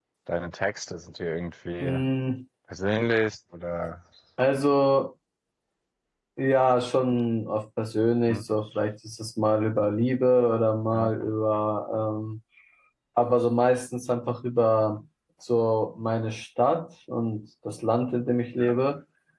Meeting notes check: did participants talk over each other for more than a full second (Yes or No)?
No